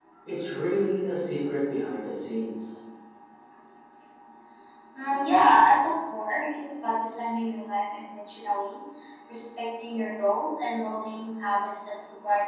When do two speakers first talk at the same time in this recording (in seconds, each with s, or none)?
none